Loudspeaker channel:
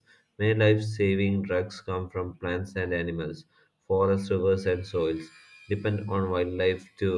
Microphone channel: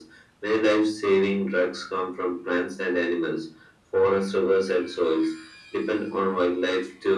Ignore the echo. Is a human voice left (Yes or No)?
No